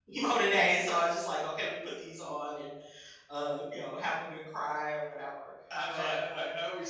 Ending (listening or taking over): taking over